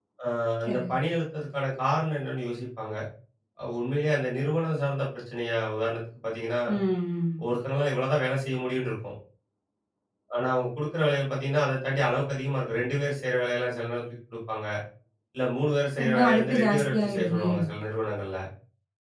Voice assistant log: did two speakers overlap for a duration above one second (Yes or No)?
Yes